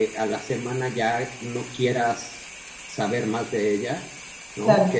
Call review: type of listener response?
listening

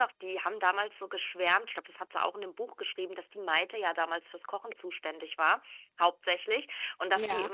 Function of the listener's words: listening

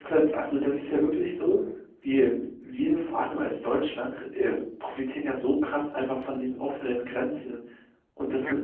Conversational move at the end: listening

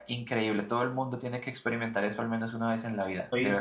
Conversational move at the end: taking over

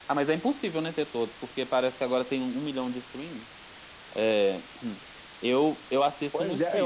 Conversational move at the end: taking over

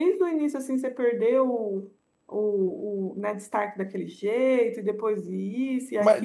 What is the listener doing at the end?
taking over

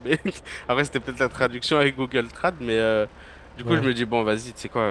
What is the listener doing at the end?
listening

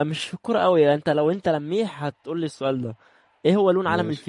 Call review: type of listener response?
listening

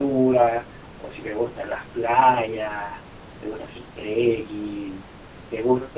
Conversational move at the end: taking over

